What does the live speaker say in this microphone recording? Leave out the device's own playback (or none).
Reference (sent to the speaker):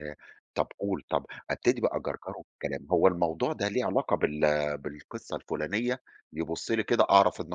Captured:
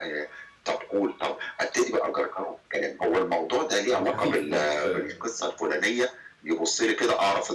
آه خفيف مش-